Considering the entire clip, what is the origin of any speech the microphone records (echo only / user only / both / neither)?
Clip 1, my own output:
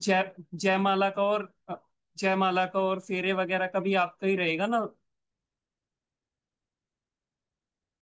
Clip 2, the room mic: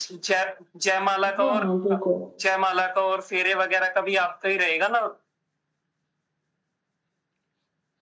both